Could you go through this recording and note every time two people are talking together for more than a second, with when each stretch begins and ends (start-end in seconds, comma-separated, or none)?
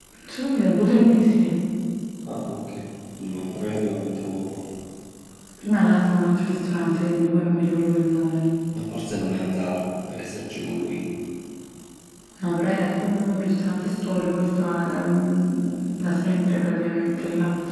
none